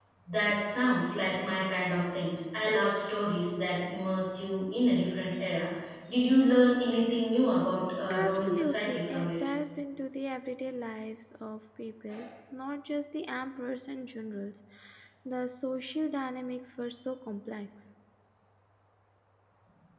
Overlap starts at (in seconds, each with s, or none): 8.0 s